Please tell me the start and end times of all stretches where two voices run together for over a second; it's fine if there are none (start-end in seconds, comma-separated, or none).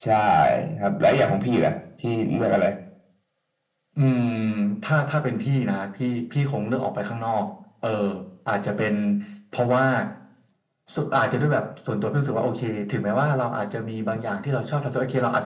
none